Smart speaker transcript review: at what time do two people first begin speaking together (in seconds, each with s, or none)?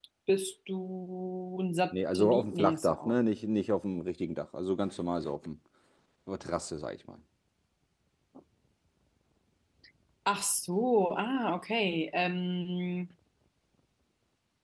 1.9 s